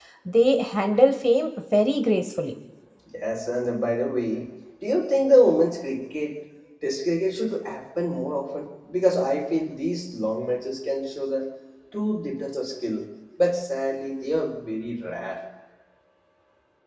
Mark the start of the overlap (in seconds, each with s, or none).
none